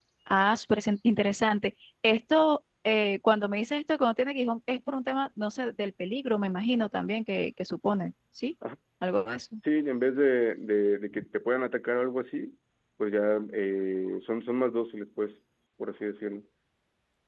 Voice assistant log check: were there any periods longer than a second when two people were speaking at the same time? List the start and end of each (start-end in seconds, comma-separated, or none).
none